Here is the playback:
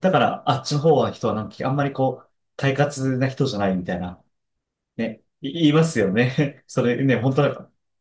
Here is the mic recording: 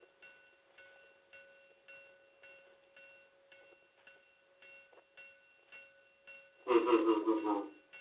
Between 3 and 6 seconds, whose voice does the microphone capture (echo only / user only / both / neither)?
neither